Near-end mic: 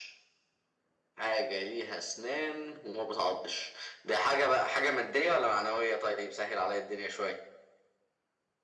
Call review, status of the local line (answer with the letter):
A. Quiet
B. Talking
A